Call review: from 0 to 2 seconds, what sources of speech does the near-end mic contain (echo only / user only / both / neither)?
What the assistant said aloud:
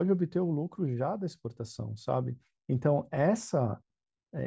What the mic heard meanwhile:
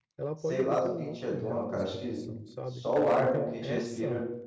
both